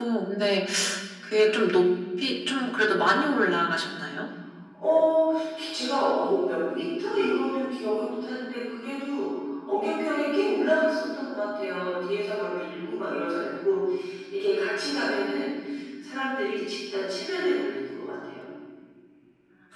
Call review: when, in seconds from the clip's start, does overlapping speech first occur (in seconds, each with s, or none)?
none